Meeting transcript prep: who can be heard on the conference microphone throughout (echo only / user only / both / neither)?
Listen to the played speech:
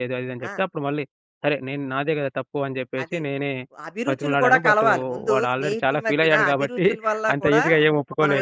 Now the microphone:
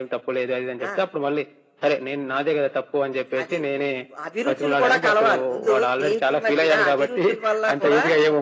echo only